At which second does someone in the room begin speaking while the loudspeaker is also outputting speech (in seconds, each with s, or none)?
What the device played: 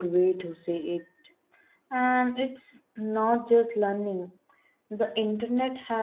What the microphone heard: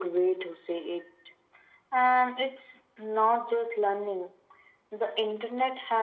none